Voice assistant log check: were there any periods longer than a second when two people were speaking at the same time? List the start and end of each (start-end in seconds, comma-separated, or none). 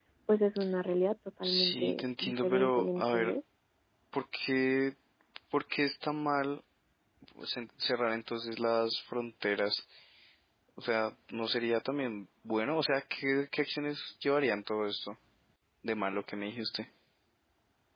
1.4-3.3